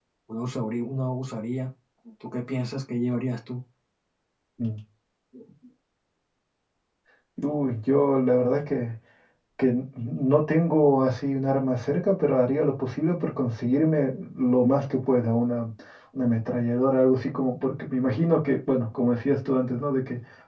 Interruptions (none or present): none